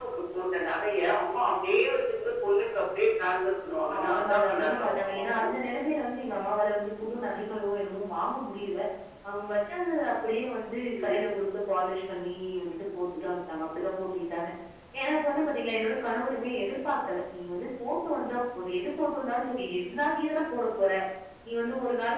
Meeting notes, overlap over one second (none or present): present